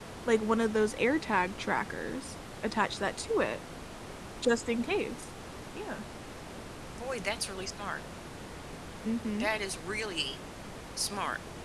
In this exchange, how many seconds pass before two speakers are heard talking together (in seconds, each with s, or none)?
none